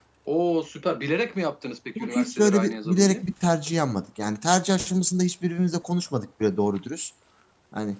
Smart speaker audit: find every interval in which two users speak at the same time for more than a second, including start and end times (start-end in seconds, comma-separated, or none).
2.0-3.2